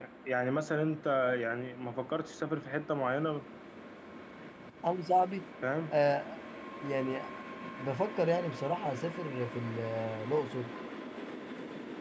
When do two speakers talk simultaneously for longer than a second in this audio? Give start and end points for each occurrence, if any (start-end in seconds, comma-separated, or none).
none